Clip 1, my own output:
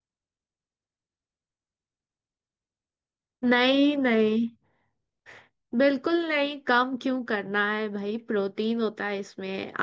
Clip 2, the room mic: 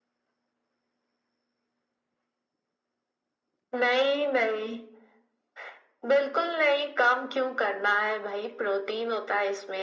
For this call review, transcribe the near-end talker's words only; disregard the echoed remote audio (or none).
none